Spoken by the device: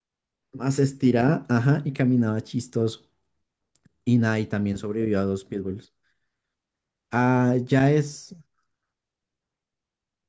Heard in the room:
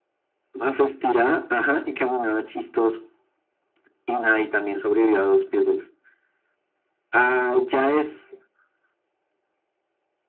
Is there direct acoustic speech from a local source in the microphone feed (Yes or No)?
No